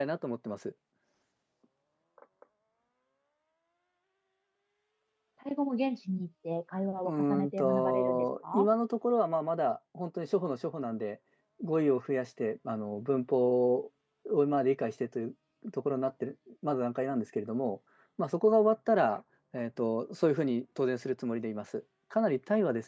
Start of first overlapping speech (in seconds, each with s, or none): 7.0 s